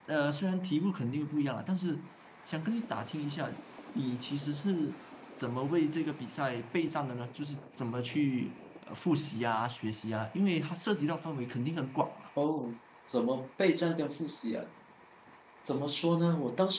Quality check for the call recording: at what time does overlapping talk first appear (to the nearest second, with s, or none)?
none